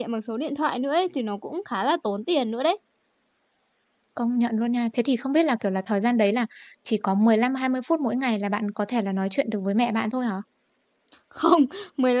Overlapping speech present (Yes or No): No